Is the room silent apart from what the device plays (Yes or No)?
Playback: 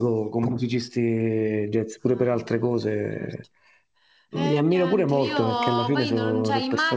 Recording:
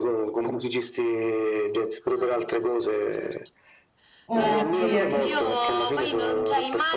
No